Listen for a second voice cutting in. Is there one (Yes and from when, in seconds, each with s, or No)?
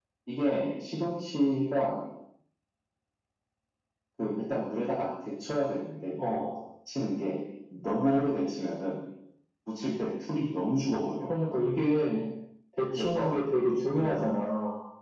Yes, from 13.0 s